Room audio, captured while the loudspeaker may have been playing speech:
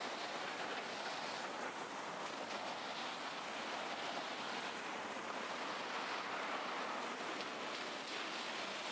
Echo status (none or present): none